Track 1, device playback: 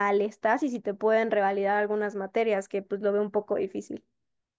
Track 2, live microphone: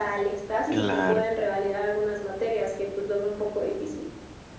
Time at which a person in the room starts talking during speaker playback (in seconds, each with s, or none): 0.7 s